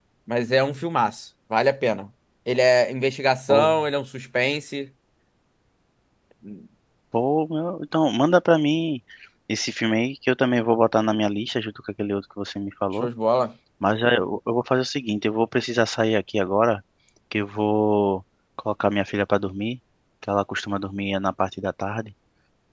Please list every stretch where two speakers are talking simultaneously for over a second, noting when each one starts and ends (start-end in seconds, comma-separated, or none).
none